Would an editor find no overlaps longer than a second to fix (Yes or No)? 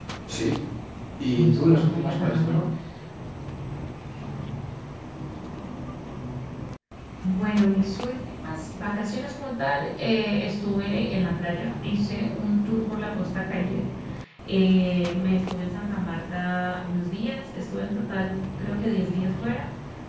No